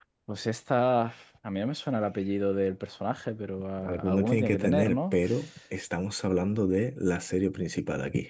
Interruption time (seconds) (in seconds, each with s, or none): 3.8 s